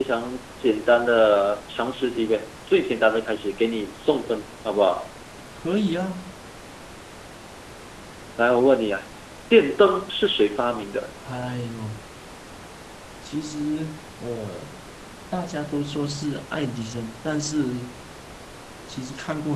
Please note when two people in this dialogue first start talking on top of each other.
none

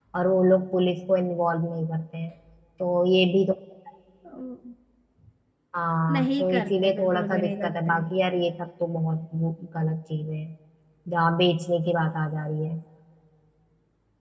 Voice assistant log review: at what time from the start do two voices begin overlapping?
6.1 s

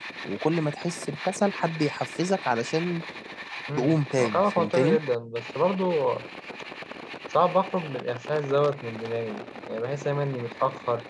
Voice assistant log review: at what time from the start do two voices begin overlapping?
3.8 s

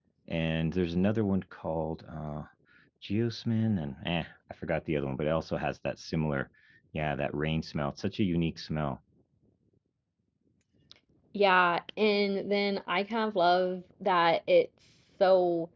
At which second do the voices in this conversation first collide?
none

